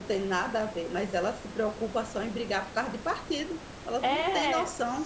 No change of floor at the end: No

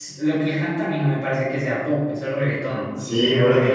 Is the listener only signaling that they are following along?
No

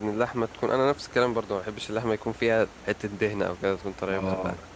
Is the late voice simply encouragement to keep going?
No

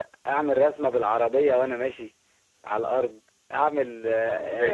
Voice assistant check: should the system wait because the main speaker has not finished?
No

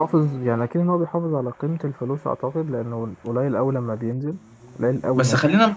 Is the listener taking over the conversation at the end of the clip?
Yes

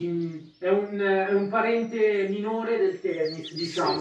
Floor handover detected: Yes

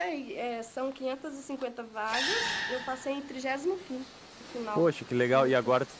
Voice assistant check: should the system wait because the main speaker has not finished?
No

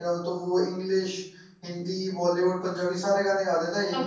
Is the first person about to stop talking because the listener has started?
Yes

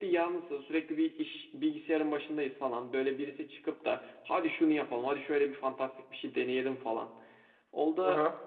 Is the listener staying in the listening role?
Yes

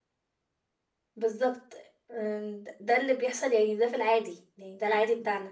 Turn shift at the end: No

